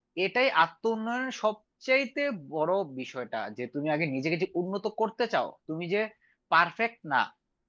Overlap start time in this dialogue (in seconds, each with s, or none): none